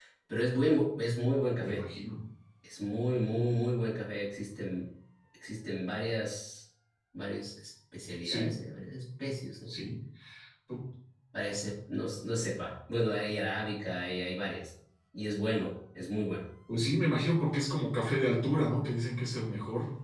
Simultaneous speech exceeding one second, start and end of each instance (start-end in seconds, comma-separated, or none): none